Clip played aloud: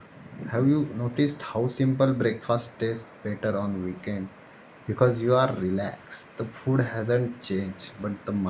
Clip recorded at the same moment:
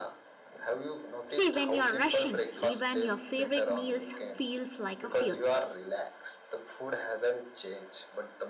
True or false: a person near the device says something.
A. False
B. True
B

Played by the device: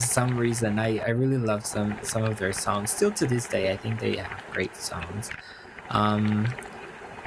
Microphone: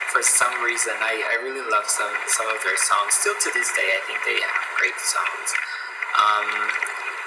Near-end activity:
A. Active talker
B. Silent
B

